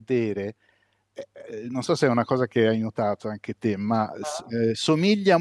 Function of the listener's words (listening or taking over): listening